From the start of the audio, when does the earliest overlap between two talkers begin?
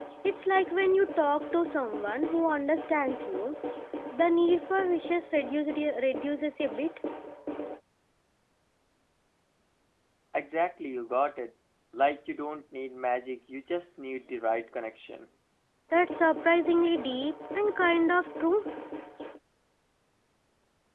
none

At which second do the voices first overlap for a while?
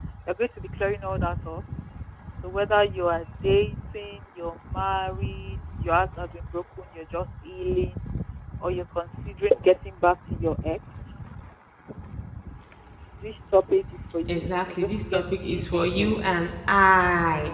14 s

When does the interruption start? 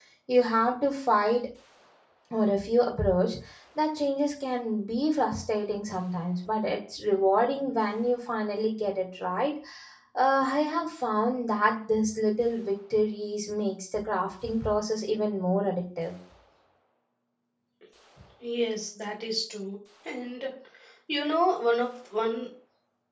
none

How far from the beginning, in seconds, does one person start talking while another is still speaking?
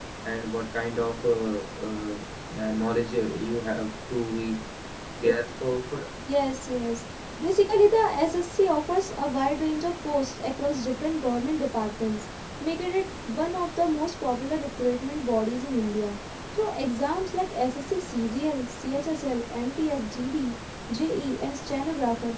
none

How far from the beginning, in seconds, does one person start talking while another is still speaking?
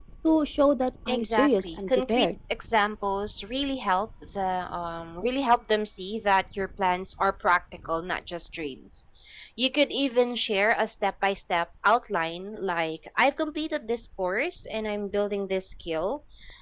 1 s

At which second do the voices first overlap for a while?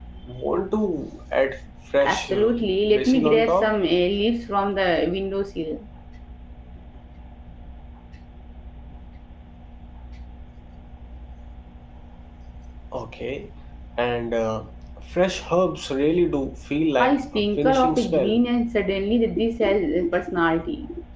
2 s

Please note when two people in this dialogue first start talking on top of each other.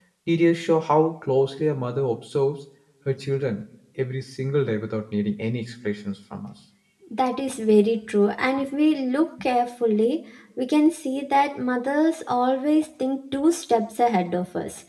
none

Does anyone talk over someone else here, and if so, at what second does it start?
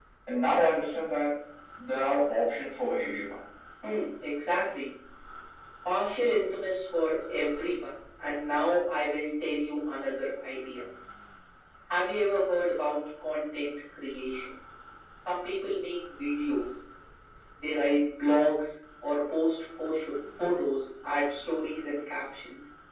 none

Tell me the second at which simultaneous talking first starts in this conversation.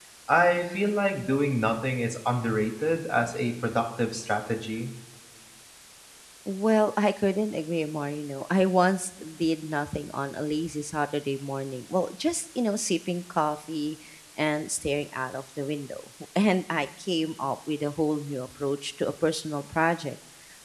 none

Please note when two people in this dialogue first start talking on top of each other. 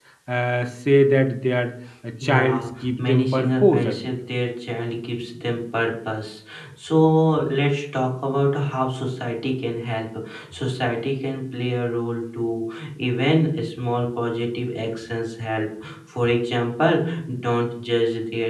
2 s

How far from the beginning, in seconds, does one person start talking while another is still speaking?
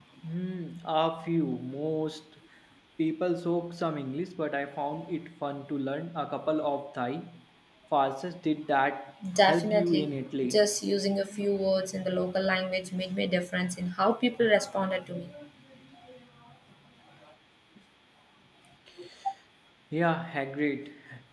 9 s

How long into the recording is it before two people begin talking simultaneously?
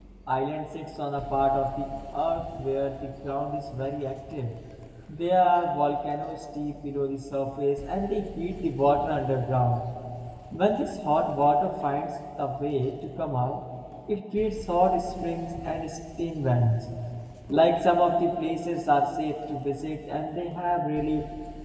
none

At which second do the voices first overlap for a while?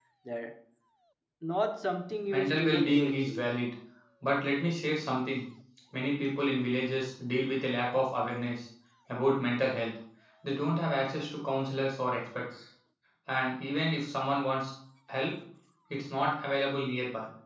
2 s

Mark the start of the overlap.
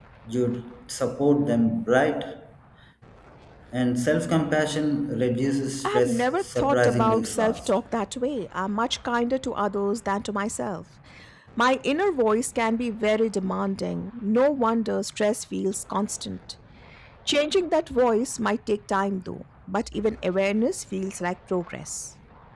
6 s

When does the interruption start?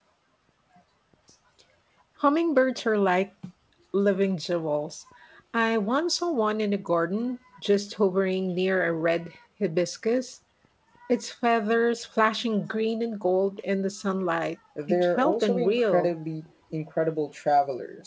15 s

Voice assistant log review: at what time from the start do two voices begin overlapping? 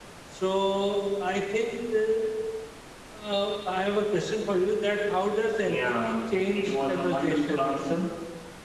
6 s

